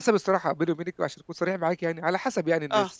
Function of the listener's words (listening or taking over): listening